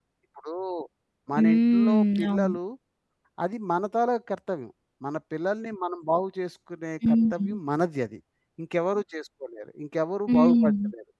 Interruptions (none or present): present